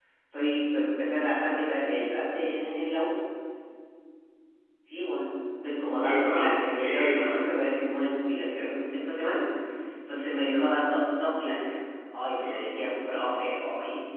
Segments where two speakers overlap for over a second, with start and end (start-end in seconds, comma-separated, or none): 6.0-7.5